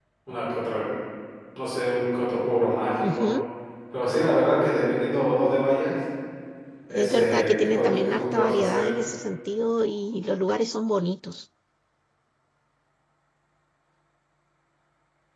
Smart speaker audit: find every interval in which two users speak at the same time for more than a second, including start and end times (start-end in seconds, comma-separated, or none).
6.9-8.9